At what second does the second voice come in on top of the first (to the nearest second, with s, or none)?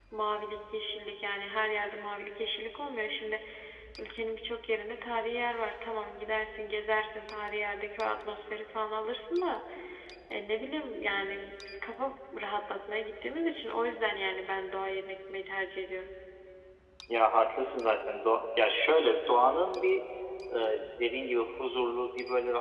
none